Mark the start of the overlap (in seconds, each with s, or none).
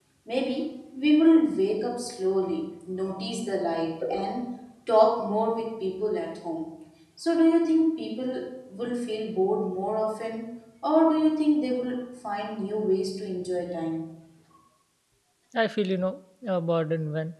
none